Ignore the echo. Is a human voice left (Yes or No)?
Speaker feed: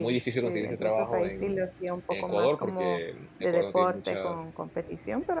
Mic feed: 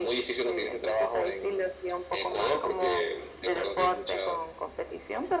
No